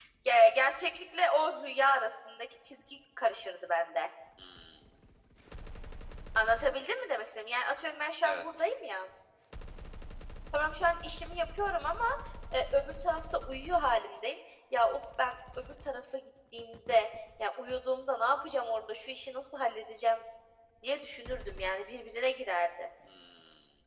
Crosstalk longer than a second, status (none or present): none